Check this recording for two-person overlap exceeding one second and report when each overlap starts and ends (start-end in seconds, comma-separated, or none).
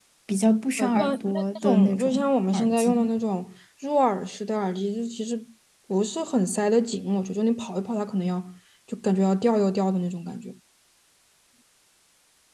0.8-3.1